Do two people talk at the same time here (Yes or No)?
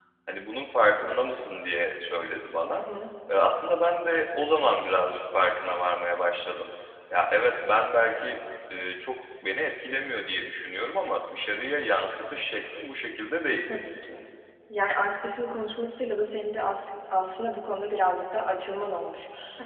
No